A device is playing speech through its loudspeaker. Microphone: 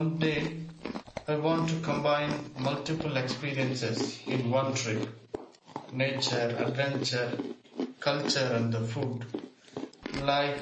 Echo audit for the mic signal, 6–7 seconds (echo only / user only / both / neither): user only